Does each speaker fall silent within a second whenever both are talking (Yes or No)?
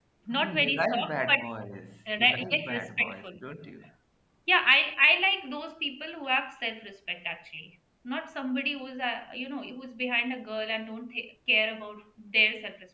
No